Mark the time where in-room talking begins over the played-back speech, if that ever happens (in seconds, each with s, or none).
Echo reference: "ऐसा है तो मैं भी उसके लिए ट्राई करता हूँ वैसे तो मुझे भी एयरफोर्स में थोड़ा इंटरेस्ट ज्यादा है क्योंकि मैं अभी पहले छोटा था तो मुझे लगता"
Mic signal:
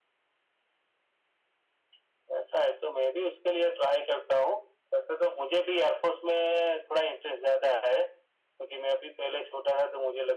none